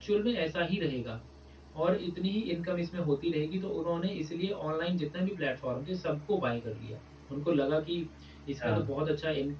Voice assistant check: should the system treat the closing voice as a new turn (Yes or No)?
No